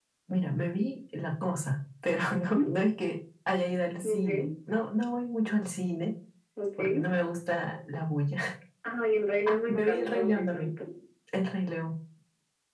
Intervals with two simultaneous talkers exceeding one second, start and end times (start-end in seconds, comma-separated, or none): 9.5-10.7